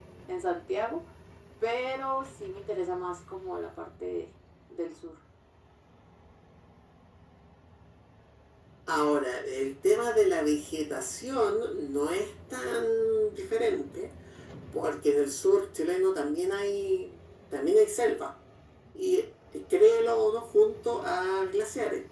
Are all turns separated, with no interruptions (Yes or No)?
Yes